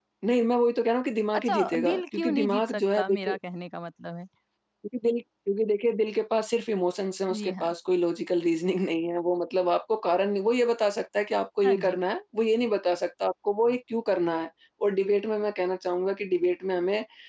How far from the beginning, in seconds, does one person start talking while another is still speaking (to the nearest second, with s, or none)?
1 s